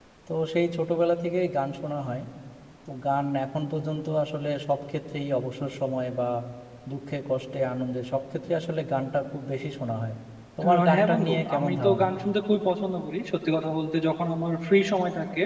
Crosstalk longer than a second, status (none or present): present